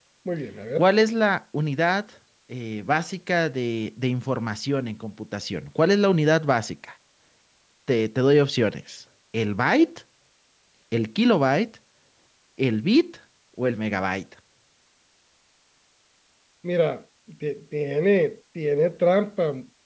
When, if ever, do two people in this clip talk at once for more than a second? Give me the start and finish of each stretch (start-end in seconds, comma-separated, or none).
none